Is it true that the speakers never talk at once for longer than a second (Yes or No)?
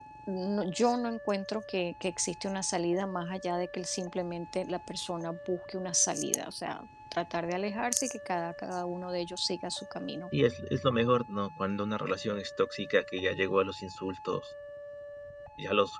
Yes